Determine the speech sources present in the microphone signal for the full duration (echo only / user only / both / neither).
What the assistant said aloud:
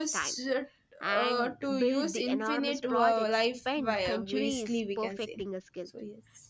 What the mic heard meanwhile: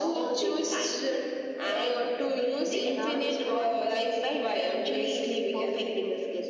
echo only